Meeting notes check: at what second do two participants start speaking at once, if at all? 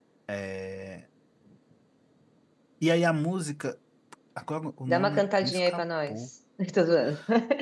4.9 s

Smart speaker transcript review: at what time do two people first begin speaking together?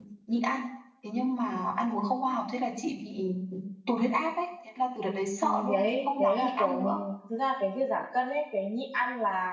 5.4 s

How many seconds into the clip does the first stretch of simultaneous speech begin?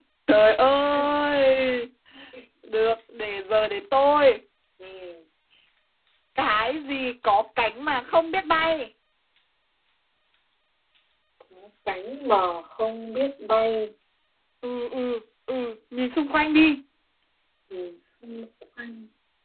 none

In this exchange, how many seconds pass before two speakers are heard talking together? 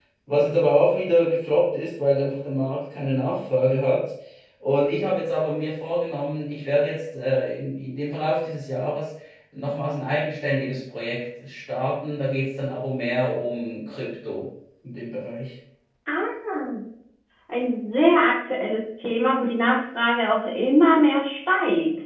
none

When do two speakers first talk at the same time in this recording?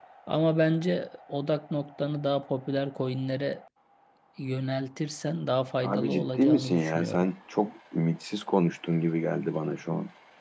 5.8 s

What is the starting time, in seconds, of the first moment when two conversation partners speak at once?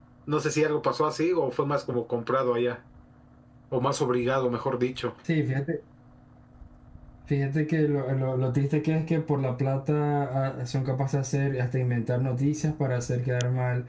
none

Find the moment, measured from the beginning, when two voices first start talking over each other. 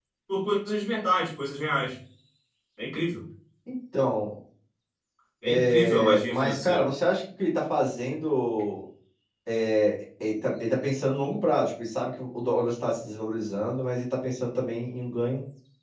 5.4 s

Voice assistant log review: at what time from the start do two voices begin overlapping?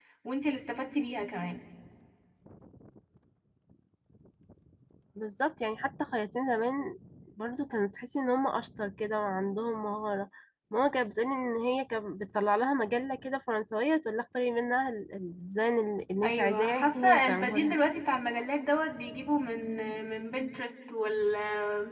16.2 s

